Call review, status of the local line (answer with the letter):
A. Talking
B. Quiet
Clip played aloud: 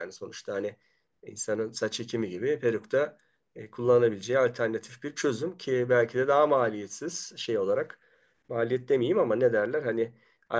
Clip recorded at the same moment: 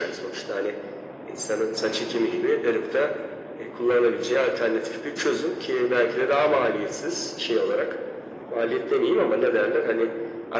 B